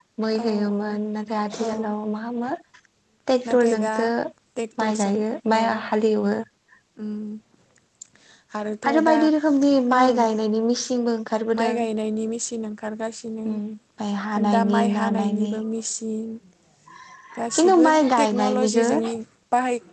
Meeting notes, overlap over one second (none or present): present